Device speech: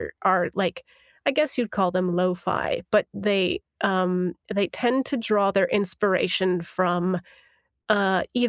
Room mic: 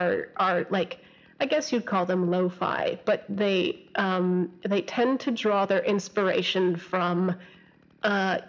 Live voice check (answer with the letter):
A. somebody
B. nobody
B